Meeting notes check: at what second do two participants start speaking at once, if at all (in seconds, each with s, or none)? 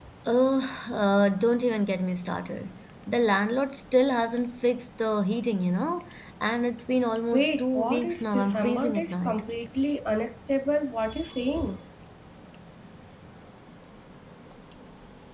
7.3 s